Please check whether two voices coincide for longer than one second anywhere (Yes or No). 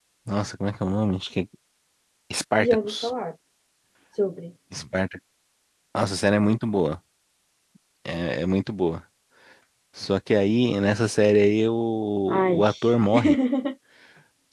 No